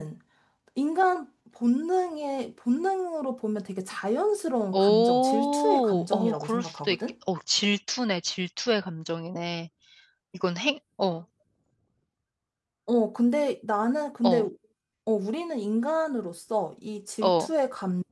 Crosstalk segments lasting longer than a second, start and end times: 4.7-7.0

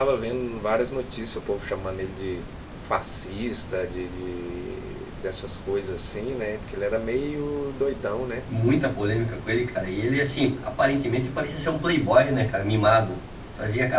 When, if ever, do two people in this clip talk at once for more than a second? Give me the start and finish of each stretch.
none

